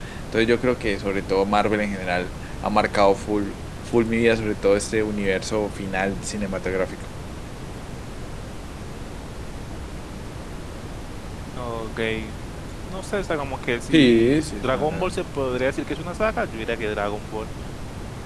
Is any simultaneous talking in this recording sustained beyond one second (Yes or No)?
Yes